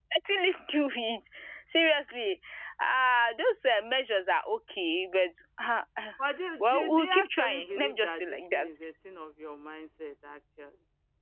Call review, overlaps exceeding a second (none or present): present